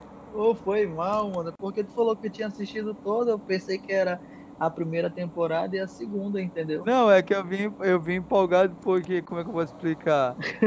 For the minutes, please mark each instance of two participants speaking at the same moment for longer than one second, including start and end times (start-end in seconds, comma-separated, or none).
none